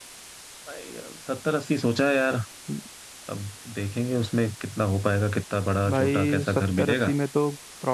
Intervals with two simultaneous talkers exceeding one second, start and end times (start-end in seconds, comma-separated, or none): 5.9-7.1